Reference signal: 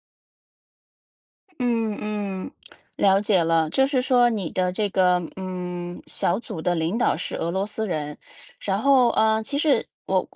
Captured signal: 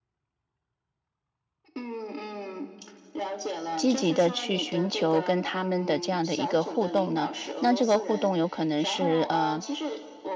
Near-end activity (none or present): present